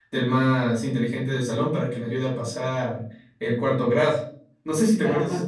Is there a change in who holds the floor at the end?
Yes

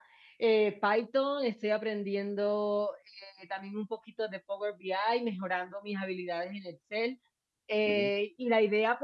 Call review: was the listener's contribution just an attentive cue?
Yes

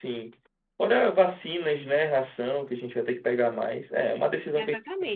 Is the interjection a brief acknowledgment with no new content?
No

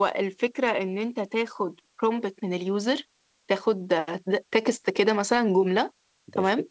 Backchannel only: Yes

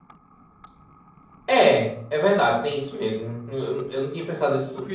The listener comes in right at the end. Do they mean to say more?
Yes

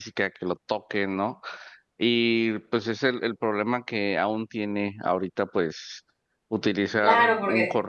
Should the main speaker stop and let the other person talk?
Yes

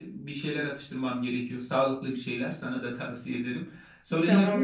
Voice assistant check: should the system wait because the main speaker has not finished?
No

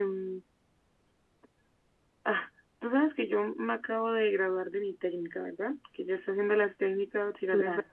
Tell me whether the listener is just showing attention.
Yes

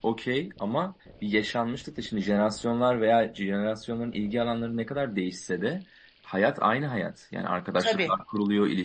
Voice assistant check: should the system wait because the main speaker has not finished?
Yes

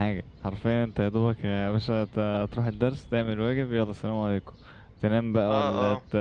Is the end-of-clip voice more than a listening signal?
No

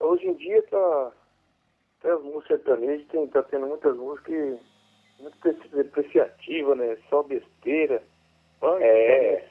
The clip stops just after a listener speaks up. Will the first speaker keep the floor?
Yes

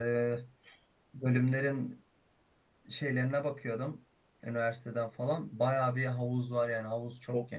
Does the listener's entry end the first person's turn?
Yes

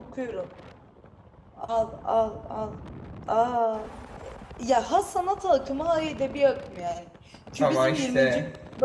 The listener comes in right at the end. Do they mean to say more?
No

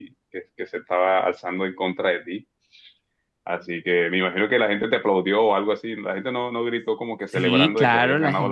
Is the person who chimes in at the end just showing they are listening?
No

